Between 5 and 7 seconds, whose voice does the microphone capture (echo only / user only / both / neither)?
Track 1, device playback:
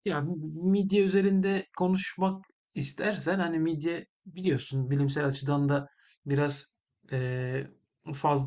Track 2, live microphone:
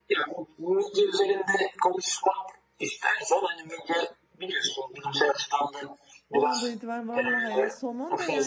both